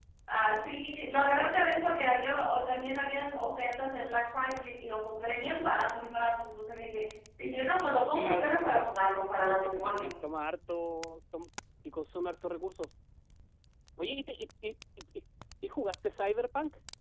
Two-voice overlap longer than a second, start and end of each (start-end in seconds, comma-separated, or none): 8.1-10.1